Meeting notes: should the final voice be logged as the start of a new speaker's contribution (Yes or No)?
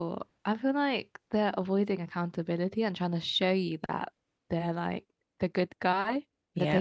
No